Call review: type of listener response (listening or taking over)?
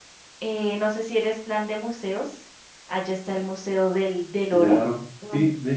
taking over